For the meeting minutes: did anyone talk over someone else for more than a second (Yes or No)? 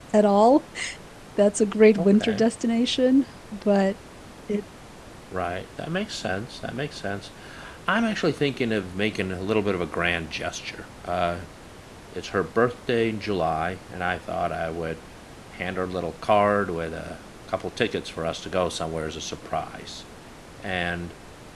No